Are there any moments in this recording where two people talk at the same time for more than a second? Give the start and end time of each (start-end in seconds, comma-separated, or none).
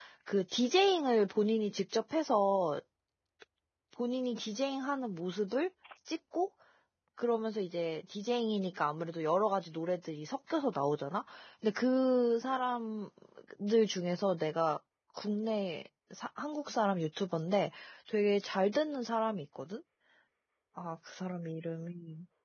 none